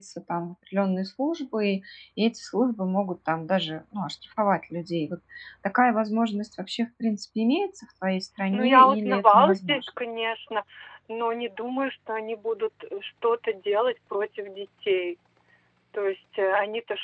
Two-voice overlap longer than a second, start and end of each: 8.5-9.9

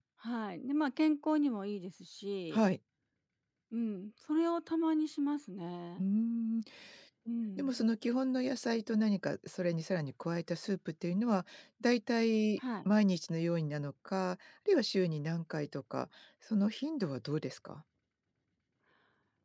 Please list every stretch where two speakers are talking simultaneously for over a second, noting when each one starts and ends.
none

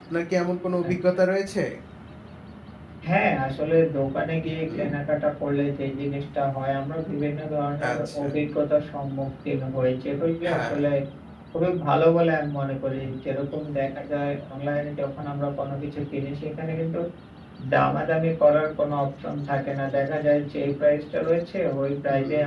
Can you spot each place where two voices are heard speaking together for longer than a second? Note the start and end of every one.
none

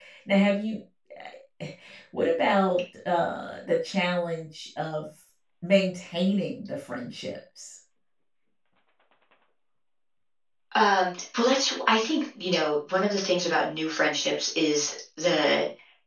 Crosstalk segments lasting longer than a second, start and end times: none

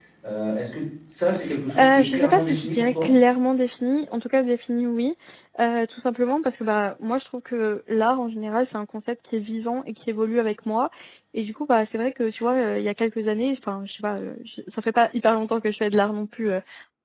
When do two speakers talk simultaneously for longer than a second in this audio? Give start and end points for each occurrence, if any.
1.8-3.1

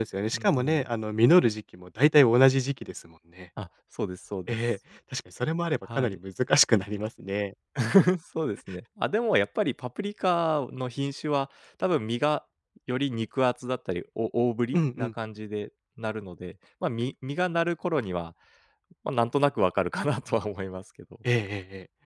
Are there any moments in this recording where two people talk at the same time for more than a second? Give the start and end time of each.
none

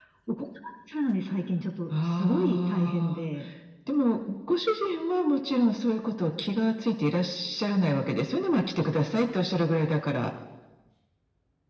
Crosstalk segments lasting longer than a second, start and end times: 2.0-3.2

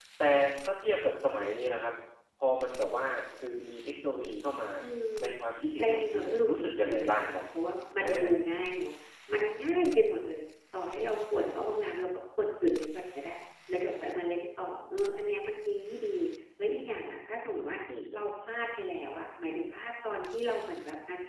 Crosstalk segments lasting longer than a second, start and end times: 5.8-7.4

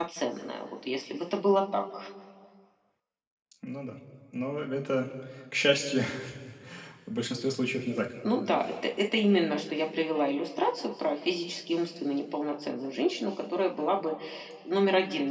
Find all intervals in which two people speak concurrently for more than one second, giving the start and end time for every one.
none

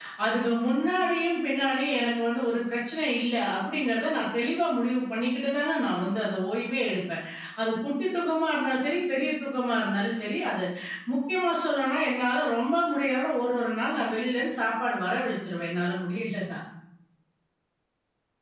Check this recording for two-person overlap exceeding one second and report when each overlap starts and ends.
none

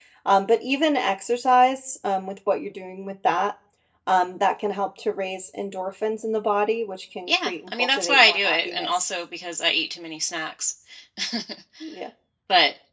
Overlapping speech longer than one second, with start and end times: 7.3-9.1

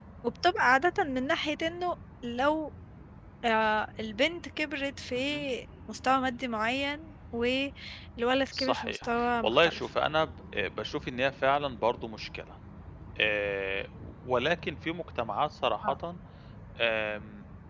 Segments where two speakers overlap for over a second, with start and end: 8.5-9.9

